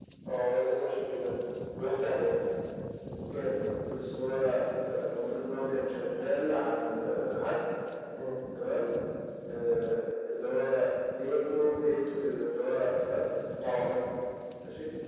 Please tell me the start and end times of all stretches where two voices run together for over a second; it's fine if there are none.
none

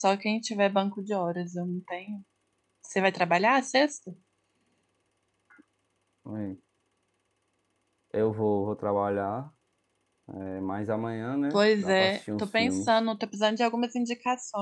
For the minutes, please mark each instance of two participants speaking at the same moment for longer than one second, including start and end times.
11.5-12.9

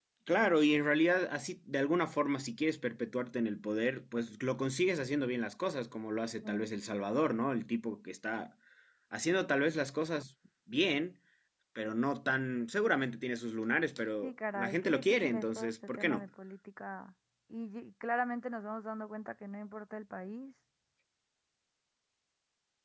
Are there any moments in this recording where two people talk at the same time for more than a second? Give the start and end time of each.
14.2-16.2

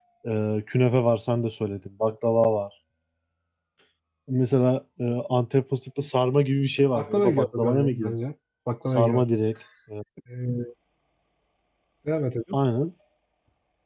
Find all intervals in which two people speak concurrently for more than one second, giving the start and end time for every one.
6.9-8.2

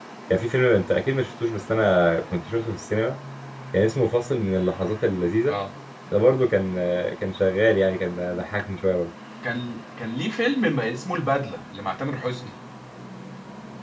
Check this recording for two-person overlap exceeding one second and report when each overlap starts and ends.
none

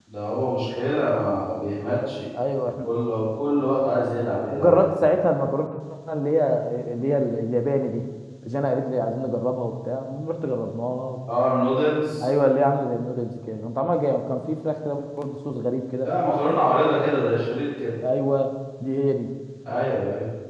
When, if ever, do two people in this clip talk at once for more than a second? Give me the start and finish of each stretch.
none

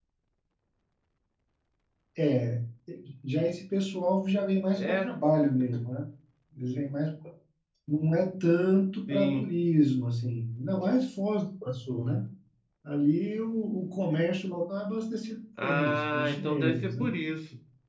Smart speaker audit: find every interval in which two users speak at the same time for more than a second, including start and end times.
15.6-17.1

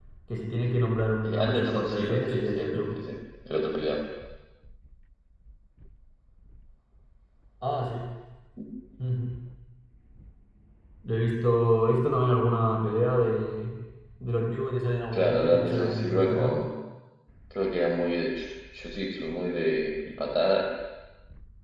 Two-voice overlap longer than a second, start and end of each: 1.2-2.9, 15.1-16.6

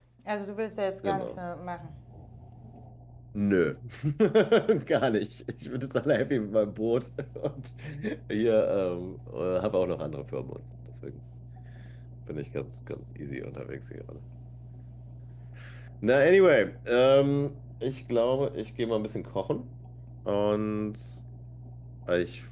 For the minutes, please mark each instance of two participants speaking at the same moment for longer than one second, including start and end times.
none

